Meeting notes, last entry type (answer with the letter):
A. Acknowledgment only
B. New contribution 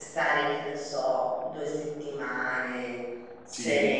A